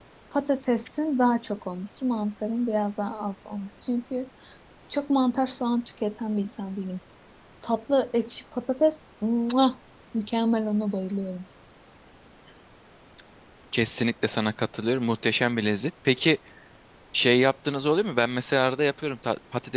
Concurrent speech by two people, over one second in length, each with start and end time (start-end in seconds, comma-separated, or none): none